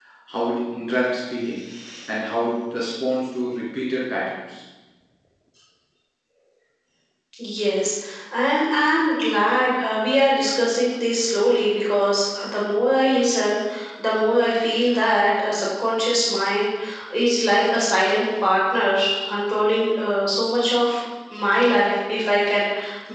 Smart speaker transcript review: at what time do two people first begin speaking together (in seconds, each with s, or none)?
none